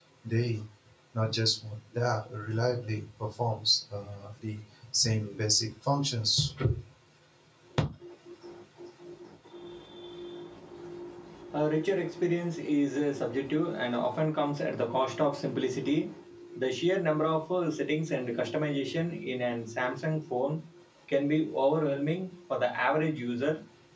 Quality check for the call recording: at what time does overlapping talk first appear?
none

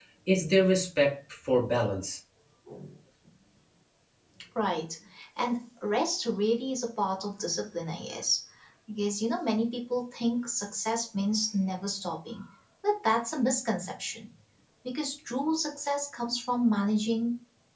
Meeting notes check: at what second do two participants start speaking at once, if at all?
none

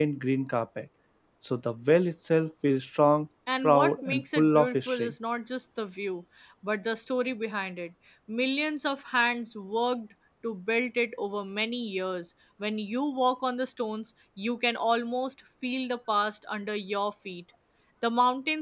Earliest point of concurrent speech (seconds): 3.5 s

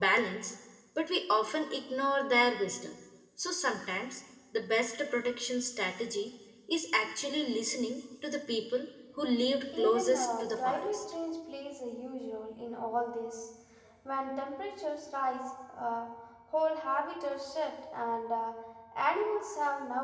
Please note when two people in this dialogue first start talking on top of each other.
9.7 s

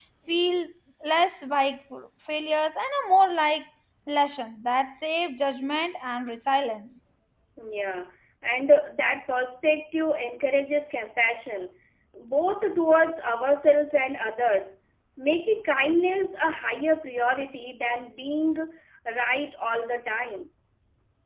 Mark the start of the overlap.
none

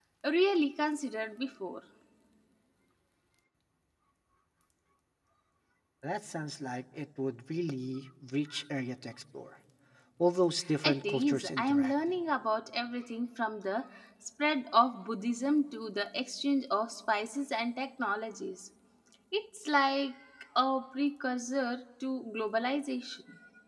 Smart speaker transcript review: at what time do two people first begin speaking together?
10.8 s

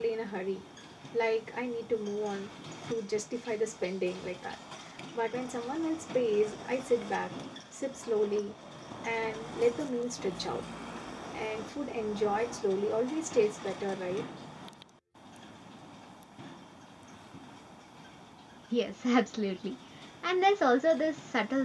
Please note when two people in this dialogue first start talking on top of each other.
none

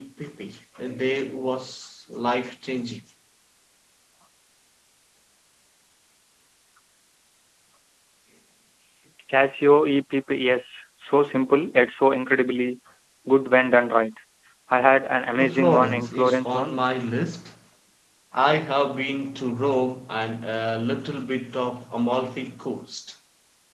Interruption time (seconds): 15.5 s

